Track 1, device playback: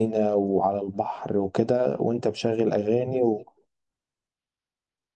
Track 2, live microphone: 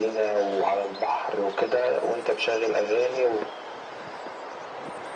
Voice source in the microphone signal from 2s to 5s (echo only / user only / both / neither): echo only